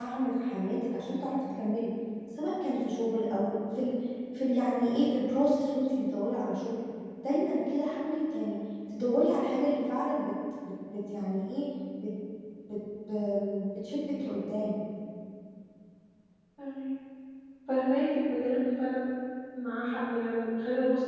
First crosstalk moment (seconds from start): none

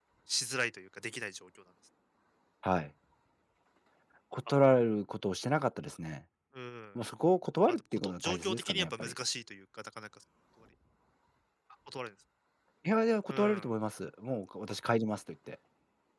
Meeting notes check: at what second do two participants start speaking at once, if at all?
8 s

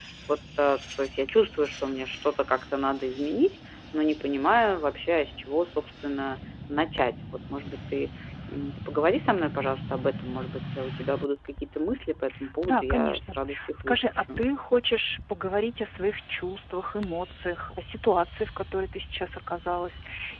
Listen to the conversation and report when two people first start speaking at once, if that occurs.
13 s

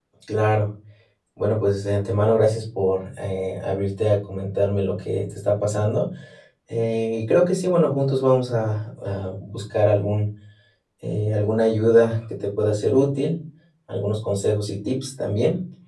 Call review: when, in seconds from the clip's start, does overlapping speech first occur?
none

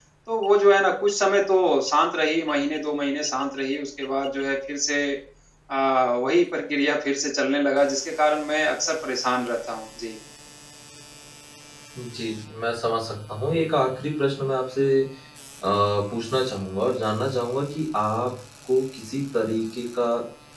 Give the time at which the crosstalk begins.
none

